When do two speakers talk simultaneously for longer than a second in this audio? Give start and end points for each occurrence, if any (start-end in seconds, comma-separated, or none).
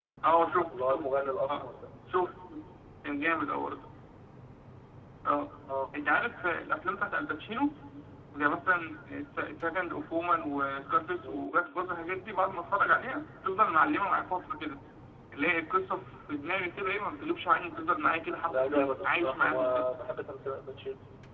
18.5-19.9